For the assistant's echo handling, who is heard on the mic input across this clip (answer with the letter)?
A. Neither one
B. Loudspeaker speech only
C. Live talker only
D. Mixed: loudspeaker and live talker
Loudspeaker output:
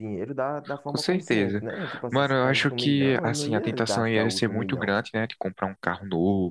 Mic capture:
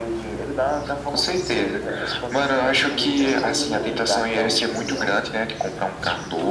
B